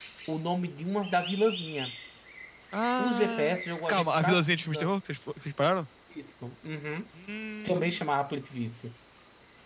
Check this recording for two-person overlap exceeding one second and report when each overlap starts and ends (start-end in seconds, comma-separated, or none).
3.0-4.9